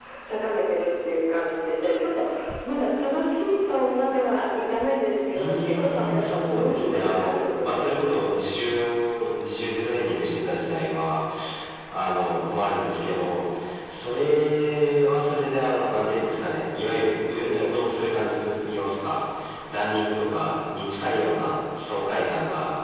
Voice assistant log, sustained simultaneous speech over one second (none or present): present